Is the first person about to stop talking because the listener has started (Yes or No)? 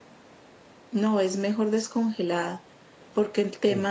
No